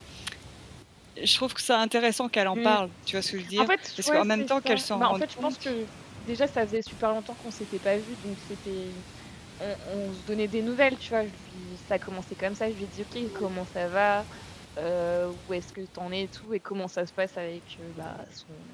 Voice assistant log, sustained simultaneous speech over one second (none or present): present